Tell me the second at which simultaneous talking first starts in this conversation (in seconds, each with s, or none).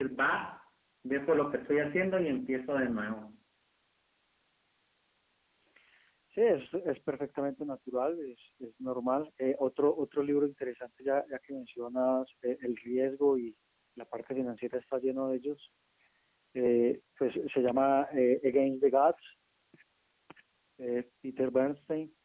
none